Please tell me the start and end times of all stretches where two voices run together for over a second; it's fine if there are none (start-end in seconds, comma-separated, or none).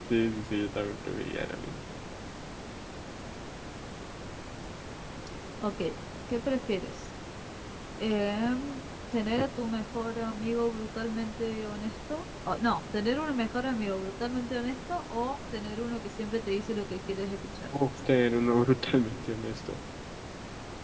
none